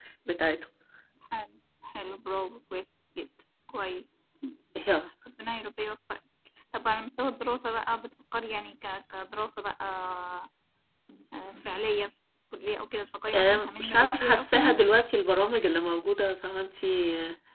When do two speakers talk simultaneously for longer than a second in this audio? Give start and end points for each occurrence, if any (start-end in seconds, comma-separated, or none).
13.3-14.8